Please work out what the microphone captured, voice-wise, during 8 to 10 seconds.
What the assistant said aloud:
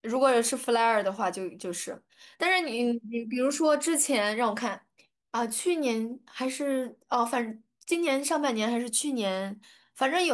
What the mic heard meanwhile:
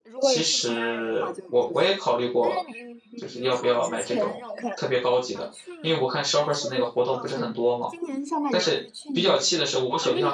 both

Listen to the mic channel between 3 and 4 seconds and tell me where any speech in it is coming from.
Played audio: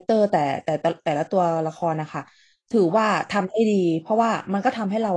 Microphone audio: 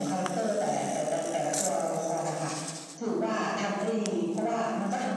echo only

